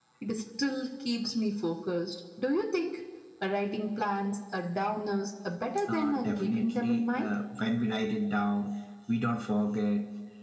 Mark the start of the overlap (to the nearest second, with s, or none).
6 s